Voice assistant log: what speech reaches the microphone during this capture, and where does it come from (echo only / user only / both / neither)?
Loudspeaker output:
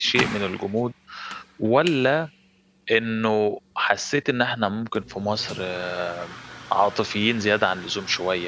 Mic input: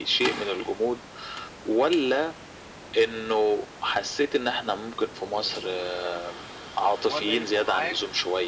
both